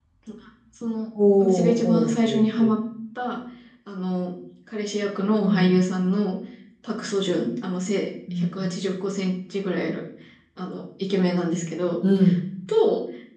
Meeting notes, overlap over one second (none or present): present